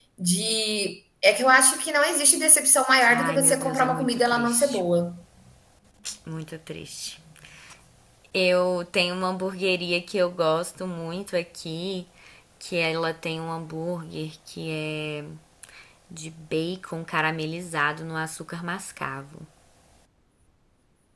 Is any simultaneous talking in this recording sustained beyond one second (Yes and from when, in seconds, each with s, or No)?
Yes, from 3.0 s